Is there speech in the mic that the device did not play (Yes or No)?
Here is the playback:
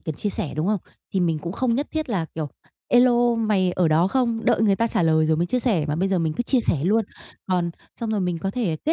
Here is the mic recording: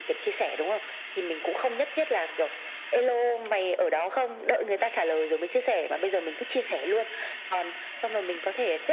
No